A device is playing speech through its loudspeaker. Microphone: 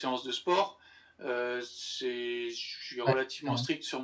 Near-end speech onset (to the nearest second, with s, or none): 3 s